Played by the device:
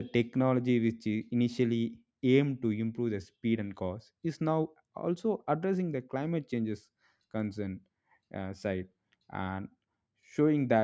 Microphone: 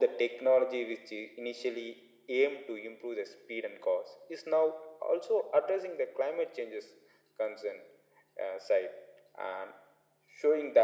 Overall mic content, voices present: echo only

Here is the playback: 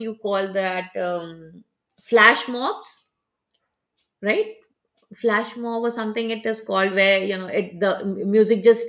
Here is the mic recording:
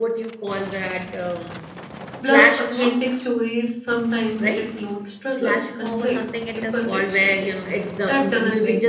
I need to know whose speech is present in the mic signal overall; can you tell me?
both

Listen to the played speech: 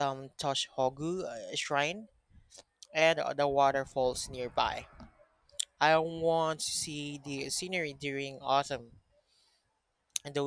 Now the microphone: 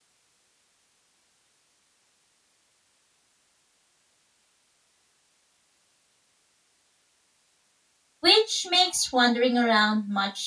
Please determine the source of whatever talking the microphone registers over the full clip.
user only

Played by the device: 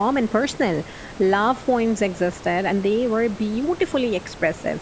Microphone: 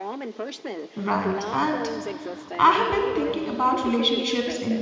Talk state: both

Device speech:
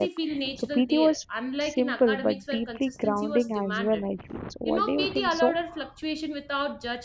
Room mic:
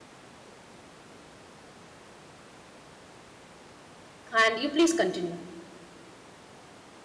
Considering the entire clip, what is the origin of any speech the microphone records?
user only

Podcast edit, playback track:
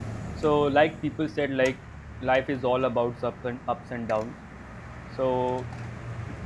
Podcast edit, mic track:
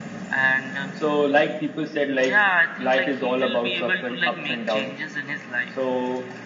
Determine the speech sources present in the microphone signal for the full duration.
both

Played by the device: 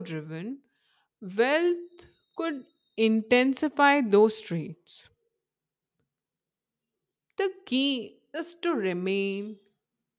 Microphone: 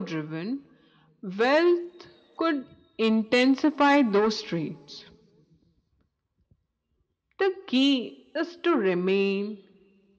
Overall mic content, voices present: echo only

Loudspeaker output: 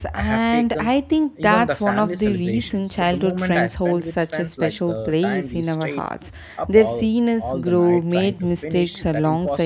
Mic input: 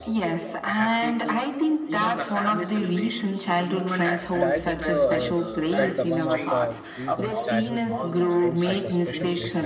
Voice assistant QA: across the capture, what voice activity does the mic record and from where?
both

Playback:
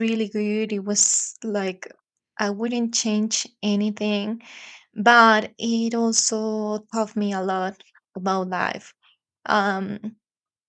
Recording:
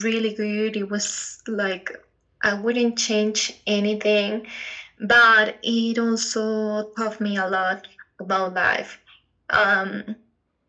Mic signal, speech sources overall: echo only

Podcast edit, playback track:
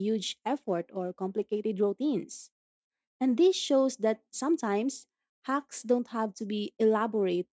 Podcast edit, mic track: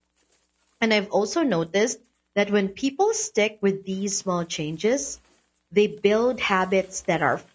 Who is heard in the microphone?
user only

